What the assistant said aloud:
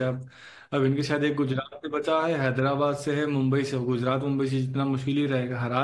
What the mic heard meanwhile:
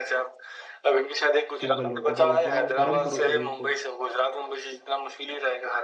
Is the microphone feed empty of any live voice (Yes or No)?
No